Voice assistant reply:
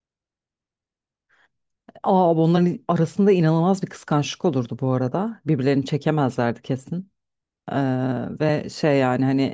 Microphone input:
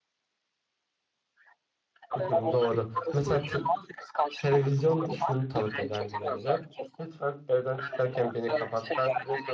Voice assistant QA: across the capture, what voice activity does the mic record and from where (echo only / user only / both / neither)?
both